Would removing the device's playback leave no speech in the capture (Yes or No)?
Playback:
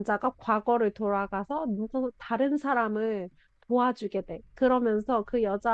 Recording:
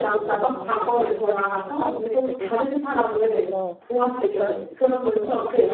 No